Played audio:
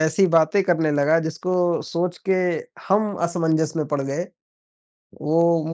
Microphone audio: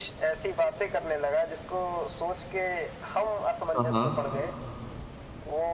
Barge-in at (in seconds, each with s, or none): 3.8 s